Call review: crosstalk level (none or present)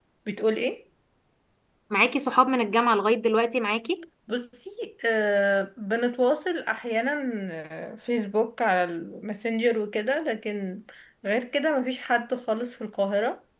none